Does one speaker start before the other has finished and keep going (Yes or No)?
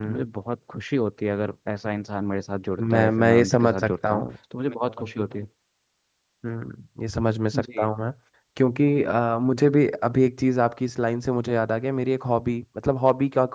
Yes